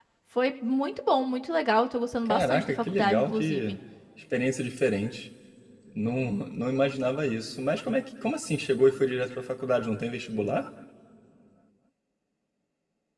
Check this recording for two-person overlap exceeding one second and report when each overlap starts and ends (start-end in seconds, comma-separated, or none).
2.3-3.7